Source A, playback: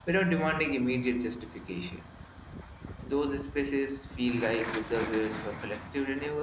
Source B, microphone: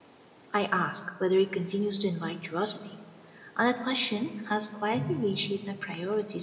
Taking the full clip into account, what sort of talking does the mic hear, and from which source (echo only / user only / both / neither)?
user only